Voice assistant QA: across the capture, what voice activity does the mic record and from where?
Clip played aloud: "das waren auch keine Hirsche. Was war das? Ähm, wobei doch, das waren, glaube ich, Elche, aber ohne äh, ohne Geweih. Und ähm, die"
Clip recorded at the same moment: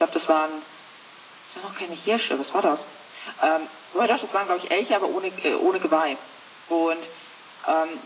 echo only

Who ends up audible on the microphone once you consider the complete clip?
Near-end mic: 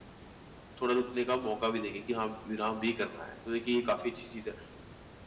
user only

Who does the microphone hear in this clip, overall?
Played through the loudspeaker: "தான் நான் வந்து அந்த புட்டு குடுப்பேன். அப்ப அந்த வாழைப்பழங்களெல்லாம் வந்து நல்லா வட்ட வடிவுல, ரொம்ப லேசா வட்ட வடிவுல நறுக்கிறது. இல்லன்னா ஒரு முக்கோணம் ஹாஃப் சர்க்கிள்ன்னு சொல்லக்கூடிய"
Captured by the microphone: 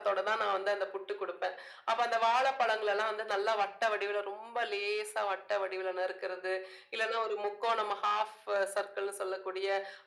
echo only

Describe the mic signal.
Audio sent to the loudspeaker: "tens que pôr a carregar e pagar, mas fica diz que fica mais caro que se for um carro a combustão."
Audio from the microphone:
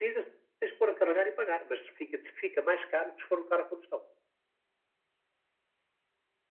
echo only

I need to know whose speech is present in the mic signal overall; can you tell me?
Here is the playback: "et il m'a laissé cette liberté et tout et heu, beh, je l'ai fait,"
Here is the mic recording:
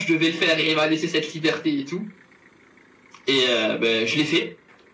echo only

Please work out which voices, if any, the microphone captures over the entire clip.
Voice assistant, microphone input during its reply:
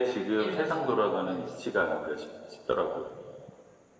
both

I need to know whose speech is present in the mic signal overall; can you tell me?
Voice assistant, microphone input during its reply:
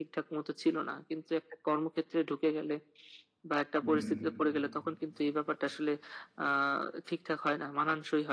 both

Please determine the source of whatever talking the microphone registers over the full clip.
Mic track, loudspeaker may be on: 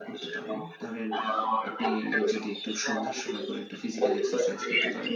both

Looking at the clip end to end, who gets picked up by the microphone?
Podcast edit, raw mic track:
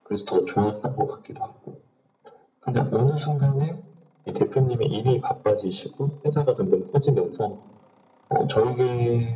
echo only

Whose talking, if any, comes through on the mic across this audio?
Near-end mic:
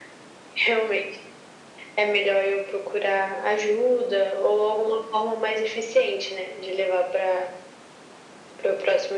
echo only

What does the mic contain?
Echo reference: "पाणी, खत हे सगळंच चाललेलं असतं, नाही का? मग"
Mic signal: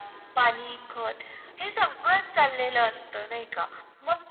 echo only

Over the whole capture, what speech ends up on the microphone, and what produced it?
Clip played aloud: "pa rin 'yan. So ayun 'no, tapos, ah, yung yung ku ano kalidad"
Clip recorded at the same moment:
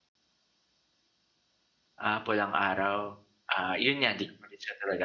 user only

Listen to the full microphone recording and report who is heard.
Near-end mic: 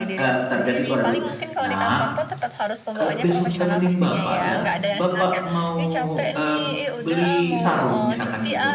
both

